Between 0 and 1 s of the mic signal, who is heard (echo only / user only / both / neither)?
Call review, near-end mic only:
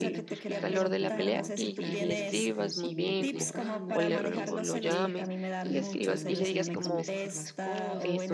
both